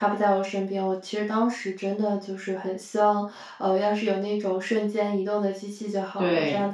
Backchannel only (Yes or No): Yes